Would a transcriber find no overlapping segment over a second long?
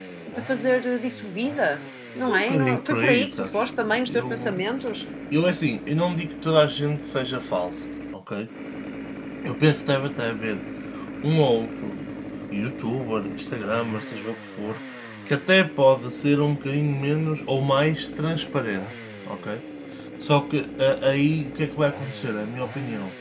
No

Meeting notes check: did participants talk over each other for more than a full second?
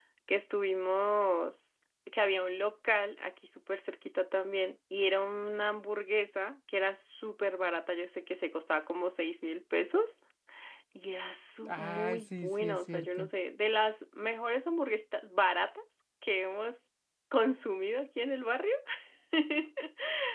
Yes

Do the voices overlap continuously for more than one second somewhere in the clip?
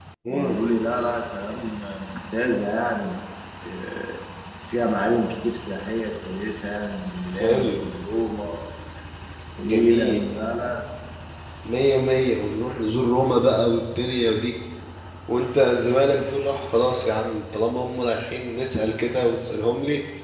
No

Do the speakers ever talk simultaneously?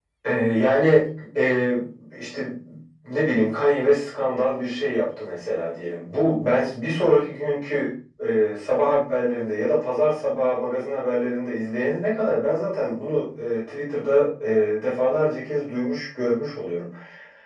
No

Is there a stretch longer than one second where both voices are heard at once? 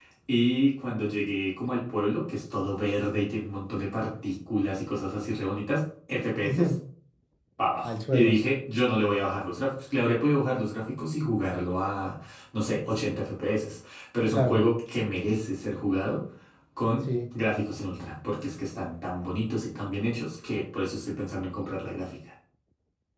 No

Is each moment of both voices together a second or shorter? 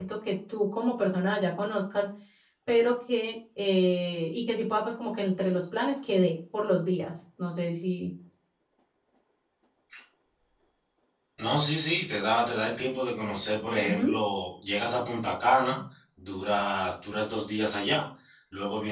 Yes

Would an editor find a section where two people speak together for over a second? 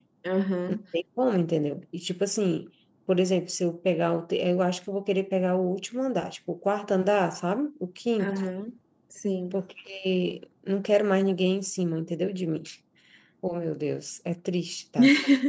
No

